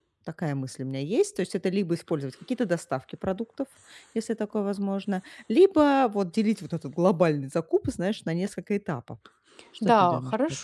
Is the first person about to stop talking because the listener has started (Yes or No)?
Yes